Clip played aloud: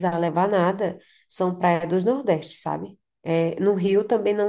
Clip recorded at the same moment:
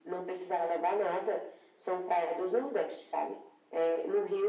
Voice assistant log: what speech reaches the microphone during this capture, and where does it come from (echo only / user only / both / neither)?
echo only